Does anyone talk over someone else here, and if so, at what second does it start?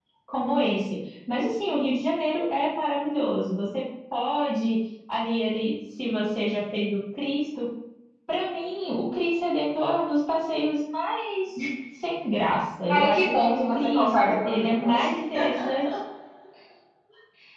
12.9 s

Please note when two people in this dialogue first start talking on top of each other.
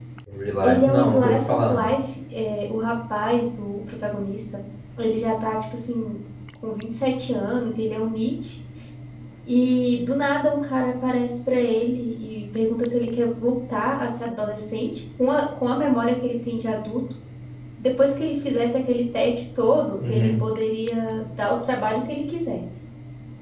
0.6 s

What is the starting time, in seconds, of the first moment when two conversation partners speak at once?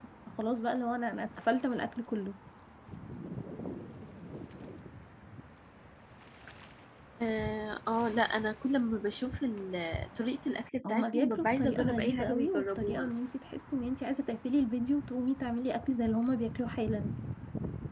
10.8 s

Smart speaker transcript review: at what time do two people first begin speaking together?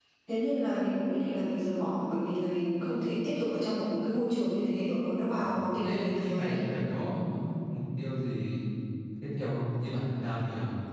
5.4 s

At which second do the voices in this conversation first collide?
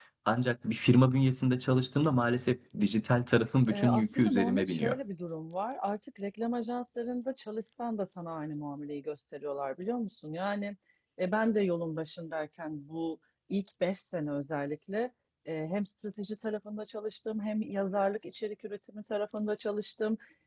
3.7 s

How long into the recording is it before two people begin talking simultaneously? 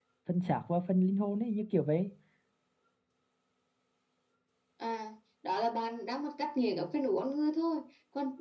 none

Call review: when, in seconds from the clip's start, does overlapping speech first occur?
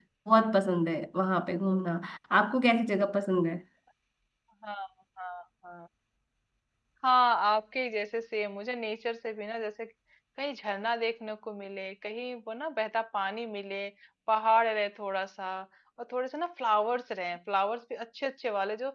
none

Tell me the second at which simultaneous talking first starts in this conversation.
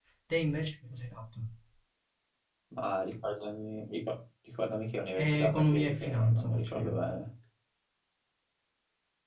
5.2 s

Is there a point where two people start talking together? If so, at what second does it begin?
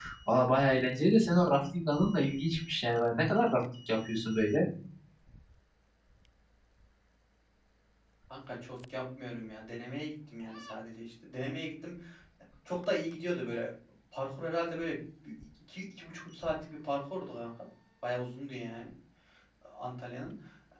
none

